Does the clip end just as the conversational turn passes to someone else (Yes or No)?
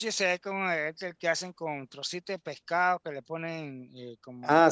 Yes